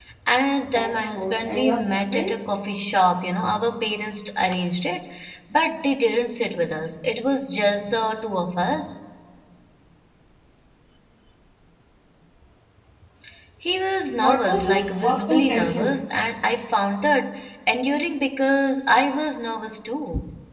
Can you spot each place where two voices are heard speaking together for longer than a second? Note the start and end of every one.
0.6-2.4, 14.2-16.0

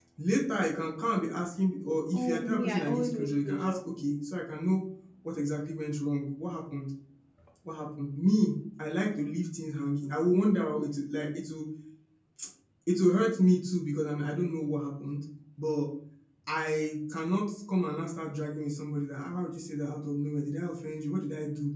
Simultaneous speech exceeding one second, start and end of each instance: 2.1-3.8

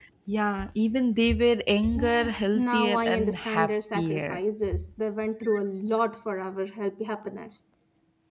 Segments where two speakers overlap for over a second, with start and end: 2.0-4.4

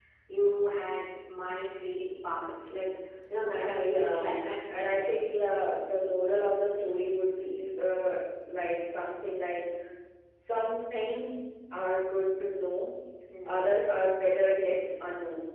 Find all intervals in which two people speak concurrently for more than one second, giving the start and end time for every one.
3.7-5.0

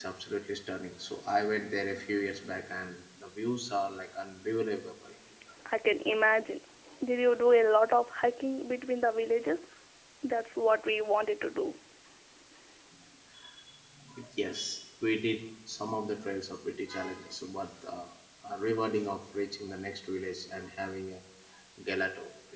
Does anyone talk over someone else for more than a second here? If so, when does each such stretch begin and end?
none

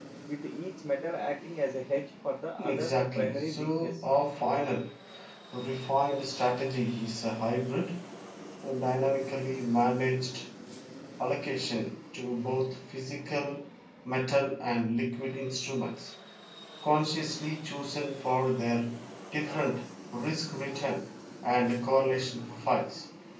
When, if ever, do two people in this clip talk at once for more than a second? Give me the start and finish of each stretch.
2.6-4.0

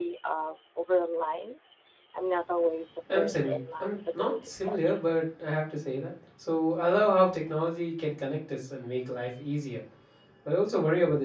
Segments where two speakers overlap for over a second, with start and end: 3.1-5.0

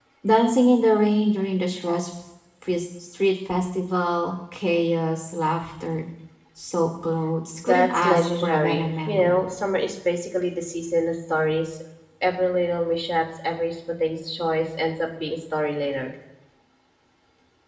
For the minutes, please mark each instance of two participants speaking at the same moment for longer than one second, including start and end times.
7.6-9.4

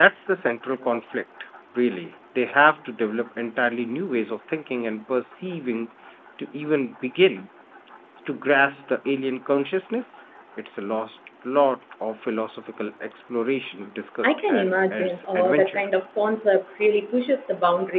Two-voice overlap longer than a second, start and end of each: 14.2-15.8

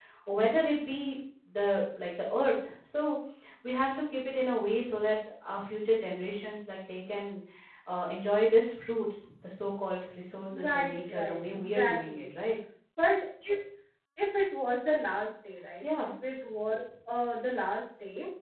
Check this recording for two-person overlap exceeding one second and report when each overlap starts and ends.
10.5-12.2

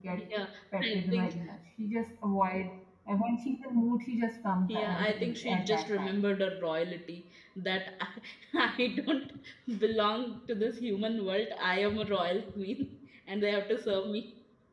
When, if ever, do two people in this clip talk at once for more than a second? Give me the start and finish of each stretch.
4.7-6.2

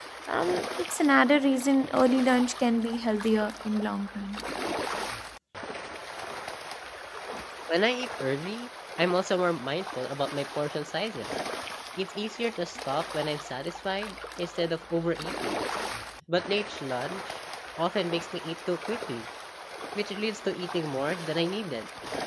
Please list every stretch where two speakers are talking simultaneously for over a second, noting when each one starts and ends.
none

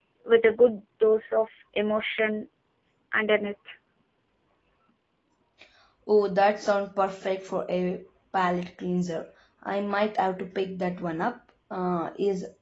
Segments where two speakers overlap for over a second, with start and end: none

